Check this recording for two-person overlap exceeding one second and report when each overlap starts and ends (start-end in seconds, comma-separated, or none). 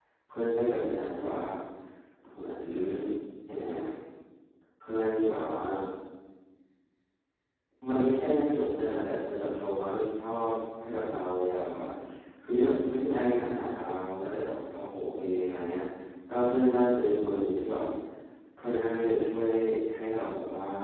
none